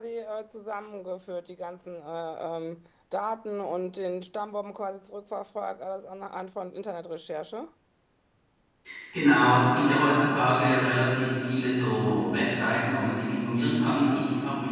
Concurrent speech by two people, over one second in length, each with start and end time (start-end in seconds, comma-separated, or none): none